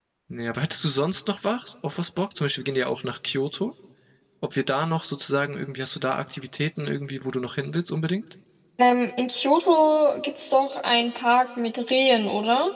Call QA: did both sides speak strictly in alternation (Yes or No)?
Yes